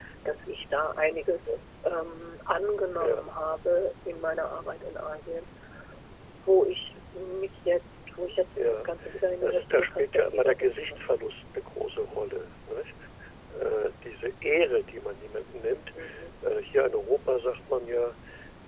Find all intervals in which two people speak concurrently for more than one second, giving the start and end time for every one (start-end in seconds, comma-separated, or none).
9.4-11.2